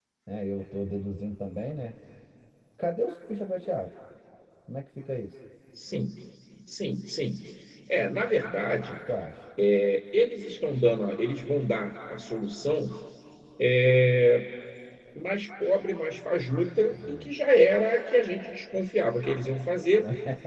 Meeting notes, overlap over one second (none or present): none